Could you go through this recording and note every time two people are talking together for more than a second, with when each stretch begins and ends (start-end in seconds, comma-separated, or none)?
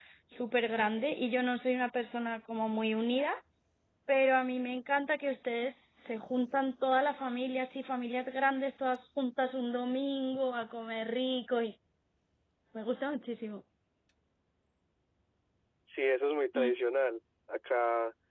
none